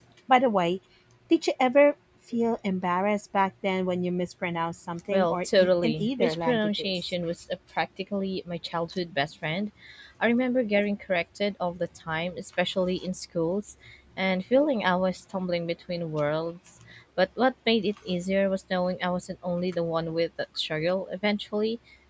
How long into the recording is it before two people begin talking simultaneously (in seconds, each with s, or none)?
5.1 s